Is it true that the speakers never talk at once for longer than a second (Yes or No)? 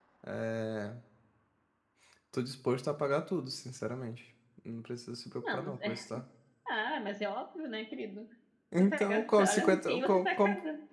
No